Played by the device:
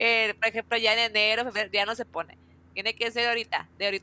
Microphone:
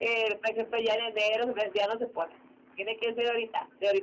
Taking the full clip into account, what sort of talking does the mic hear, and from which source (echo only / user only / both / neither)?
echo only